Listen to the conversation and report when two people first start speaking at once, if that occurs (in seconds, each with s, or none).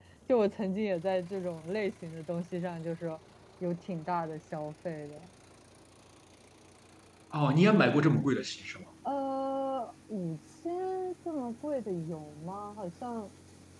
none